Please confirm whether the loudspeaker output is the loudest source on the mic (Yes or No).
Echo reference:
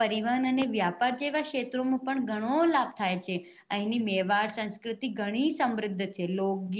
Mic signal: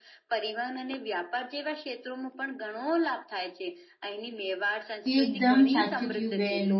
No